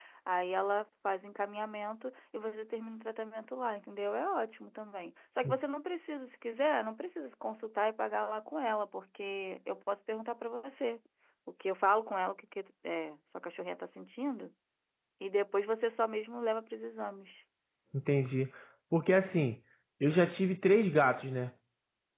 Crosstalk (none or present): none